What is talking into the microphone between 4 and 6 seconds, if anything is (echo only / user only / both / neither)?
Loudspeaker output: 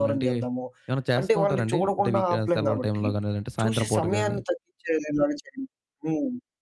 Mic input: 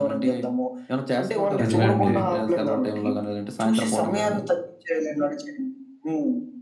echo only